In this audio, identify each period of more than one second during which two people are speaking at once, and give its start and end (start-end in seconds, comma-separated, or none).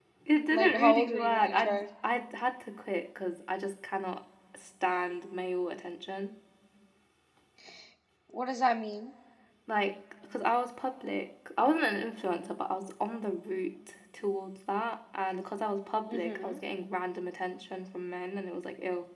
0.5-1.8